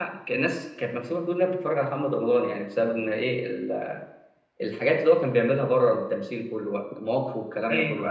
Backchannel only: No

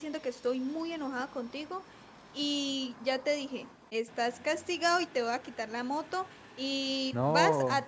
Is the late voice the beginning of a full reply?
No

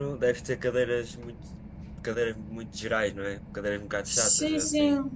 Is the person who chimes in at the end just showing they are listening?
No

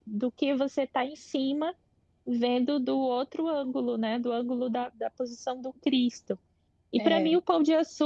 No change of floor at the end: Yes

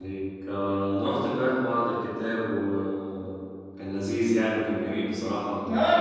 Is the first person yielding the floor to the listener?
Yes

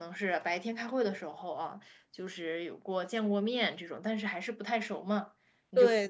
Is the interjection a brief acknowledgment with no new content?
Yes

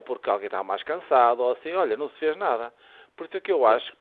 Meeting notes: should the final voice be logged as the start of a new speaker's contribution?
No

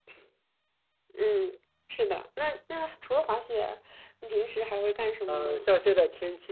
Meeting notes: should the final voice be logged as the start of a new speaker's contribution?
Yes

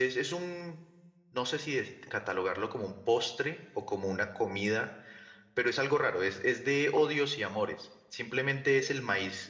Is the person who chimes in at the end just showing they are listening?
Yes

